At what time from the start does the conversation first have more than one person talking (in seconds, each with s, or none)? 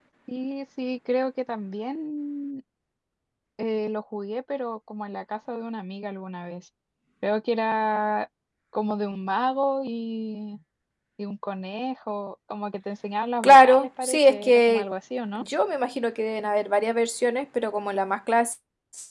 13.4 s